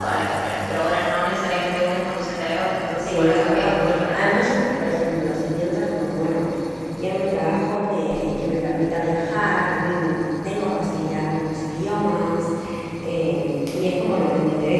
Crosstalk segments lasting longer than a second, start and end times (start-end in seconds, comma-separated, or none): 2.9-4.8